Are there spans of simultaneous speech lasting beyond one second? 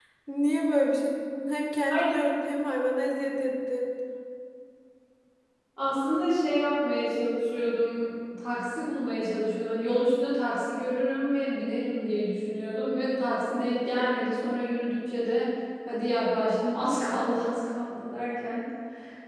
No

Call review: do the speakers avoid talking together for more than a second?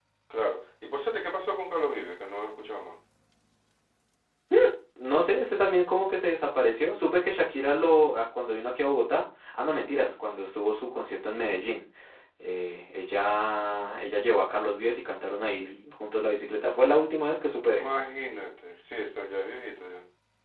Yes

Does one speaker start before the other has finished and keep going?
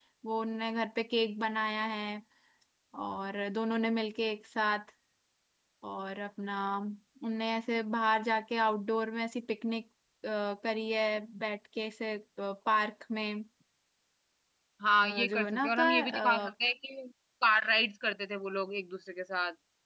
Yes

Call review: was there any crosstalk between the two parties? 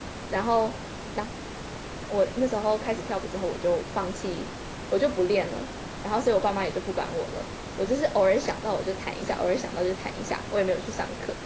No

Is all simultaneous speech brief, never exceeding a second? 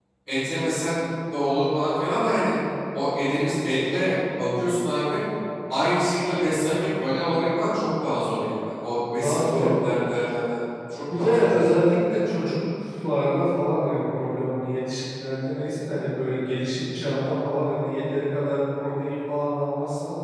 Yes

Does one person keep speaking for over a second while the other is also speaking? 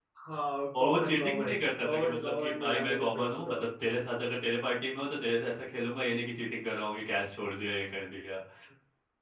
Yes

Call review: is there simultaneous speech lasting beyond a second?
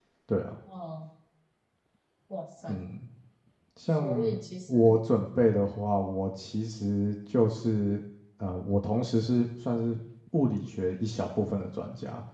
No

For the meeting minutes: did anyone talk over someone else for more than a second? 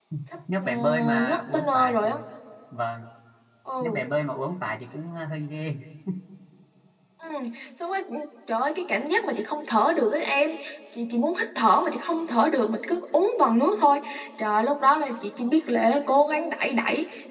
Yes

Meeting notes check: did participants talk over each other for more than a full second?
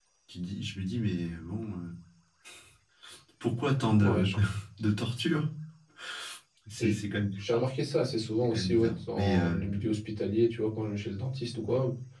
Yes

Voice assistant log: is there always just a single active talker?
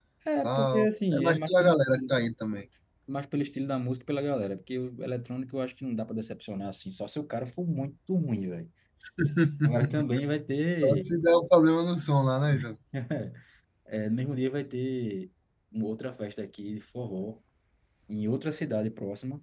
No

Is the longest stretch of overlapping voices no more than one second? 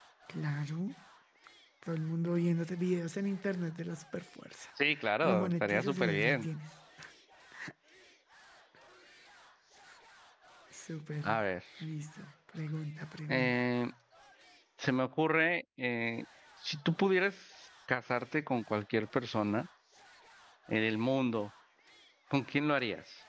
No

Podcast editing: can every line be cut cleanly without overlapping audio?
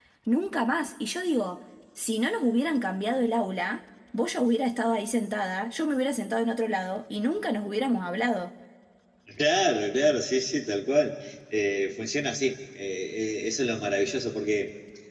Yes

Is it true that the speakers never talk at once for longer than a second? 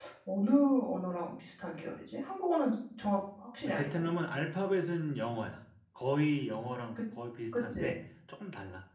Yes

